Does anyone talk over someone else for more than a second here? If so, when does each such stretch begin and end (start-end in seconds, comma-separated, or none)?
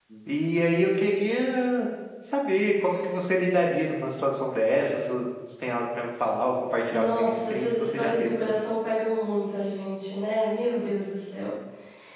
6.9-8.3